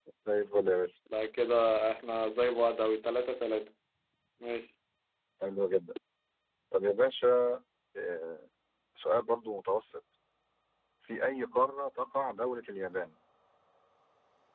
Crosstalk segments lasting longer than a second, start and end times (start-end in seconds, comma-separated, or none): none